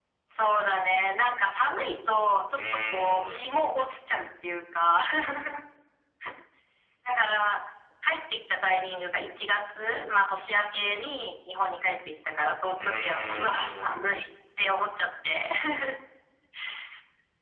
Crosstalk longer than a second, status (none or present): present